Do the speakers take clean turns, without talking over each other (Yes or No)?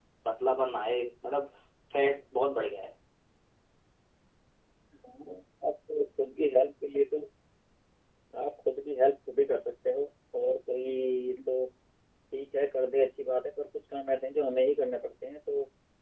Yes